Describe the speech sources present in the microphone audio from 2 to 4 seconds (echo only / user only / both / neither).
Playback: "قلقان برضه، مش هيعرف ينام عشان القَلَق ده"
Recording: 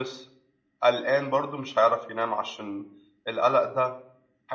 echo only